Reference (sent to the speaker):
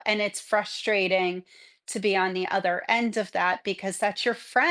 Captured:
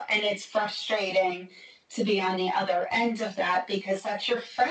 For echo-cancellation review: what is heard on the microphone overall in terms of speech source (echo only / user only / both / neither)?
echo only